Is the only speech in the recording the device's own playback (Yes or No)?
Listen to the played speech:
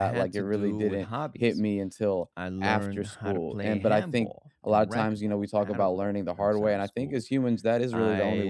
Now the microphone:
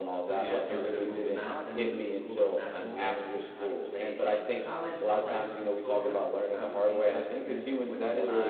No